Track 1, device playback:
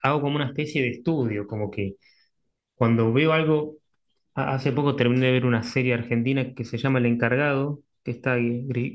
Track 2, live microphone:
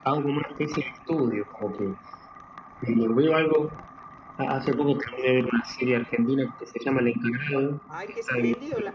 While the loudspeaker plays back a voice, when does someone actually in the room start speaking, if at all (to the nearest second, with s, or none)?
8 s